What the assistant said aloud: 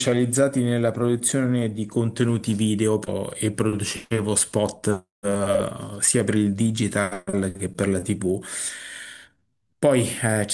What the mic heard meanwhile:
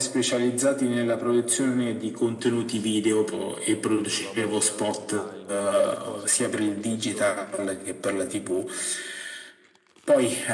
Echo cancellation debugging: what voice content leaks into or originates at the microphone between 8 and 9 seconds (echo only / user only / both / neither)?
echo only